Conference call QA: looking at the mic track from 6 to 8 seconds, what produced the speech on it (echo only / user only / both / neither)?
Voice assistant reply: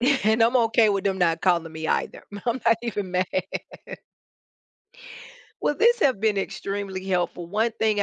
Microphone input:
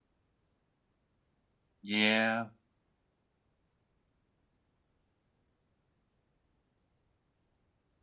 neither